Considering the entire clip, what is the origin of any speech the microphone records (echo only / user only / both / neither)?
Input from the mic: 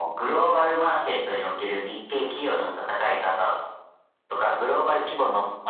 echo only